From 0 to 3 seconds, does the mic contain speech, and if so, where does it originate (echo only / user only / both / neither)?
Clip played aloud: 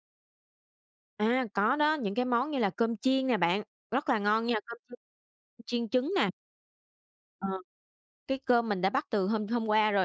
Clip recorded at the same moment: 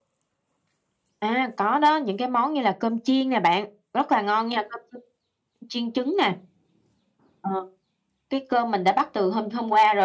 echo only